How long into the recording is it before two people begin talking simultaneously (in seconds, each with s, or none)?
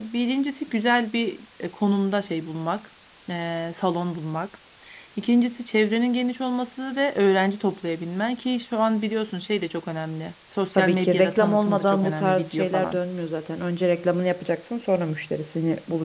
10.8 s